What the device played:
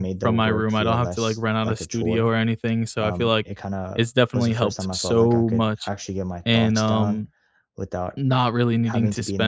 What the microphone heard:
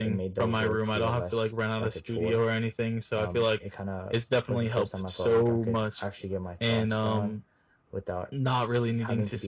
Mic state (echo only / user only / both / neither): echo only